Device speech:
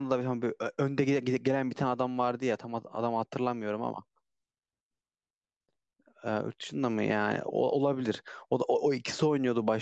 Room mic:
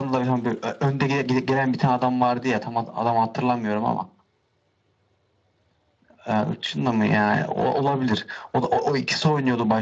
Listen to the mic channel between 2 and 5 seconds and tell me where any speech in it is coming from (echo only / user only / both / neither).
echo only